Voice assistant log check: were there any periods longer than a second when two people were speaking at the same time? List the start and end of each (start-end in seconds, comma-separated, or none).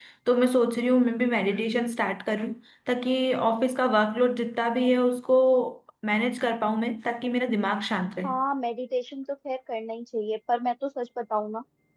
none